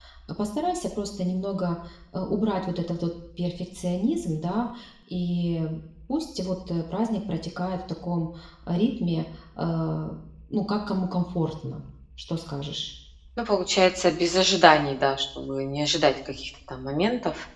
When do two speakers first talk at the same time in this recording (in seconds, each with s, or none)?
none